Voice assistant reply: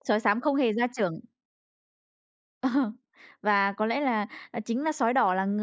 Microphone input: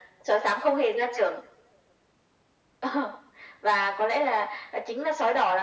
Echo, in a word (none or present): present